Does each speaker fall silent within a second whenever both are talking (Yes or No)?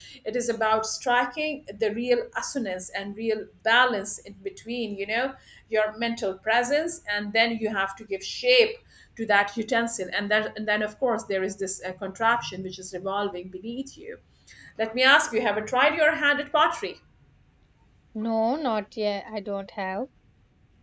Yes